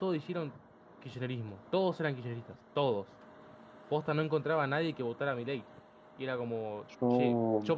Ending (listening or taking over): listening